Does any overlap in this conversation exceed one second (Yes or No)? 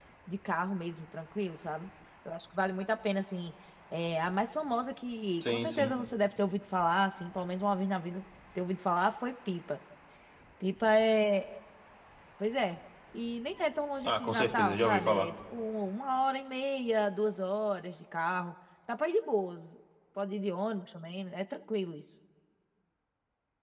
Yes